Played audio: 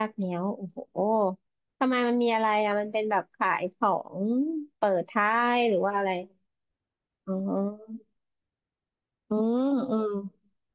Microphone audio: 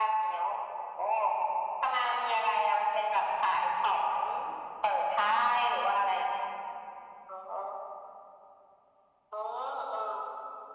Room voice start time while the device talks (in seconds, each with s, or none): none